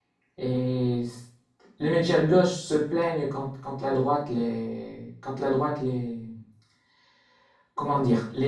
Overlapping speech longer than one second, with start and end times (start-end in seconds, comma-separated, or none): none